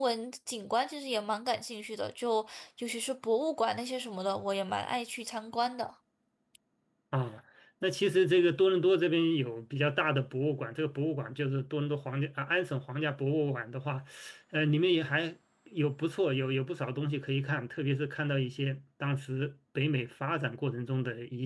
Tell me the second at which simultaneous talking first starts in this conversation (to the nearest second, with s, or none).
none